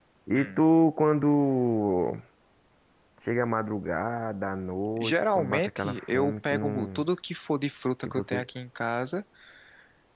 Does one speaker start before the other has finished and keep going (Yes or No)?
Yes